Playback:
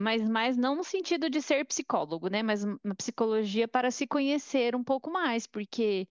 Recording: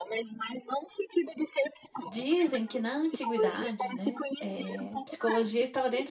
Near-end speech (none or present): present